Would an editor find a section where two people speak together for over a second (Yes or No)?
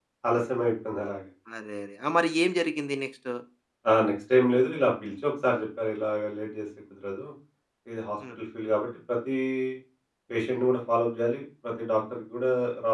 No